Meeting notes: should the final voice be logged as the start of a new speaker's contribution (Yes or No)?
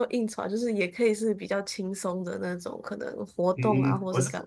Yes